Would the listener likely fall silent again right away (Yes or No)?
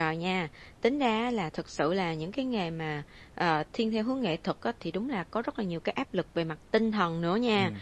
Yes